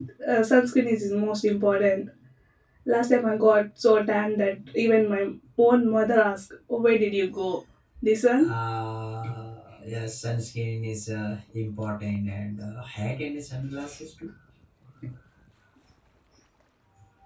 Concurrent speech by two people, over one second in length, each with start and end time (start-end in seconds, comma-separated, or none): none